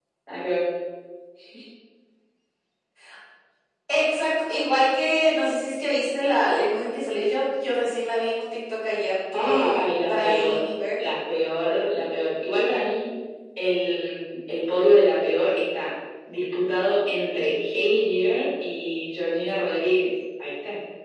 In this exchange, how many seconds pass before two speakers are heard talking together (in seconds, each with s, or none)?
9.3 s